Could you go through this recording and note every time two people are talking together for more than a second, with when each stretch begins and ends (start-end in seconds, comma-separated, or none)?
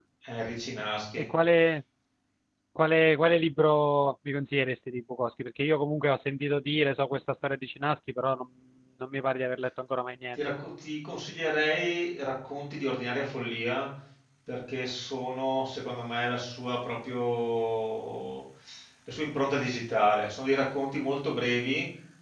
none